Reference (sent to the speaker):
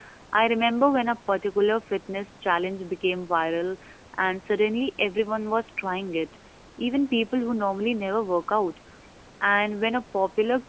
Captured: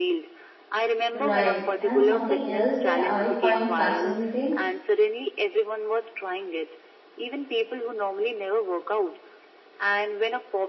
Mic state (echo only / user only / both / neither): both